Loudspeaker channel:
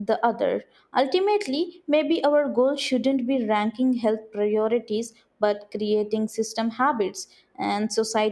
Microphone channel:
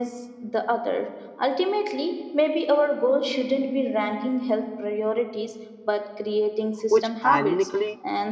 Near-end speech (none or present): present